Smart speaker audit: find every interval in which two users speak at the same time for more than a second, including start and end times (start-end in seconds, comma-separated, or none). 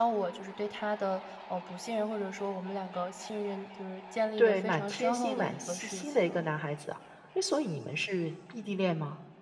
4.4-6.3